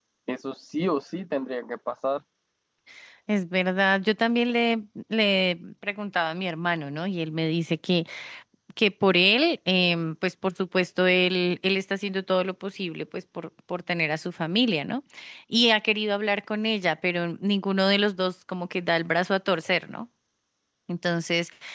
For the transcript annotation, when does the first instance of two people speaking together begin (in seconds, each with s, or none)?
none